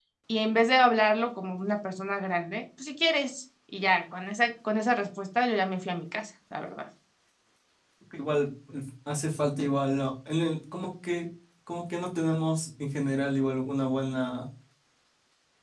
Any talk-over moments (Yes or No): No